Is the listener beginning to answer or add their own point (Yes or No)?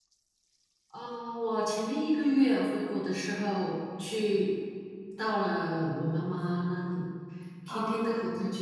No